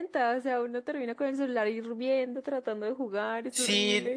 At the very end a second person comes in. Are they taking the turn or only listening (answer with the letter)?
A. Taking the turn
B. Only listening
A